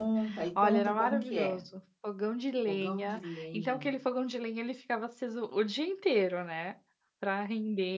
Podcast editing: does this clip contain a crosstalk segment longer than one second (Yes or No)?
Yes